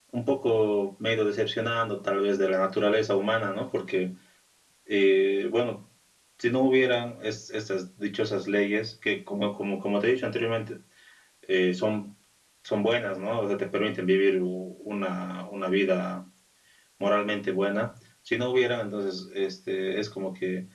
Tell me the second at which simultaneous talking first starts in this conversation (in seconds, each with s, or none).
none